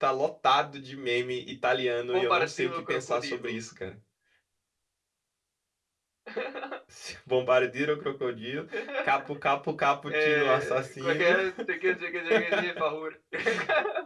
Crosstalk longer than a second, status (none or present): present